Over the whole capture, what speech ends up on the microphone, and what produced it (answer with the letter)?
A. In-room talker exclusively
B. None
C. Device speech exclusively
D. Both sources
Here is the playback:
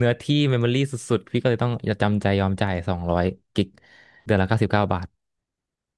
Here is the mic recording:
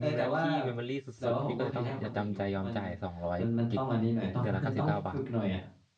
D